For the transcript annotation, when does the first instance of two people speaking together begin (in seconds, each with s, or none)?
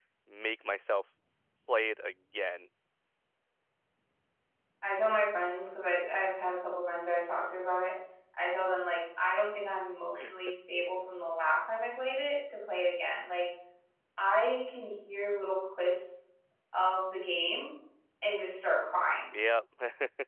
none